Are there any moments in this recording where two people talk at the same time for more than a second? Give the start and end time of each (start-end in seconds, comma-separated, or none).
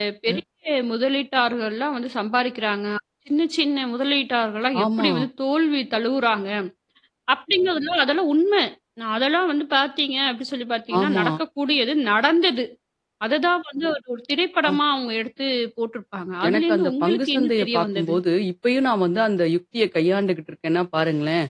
16.5-18.1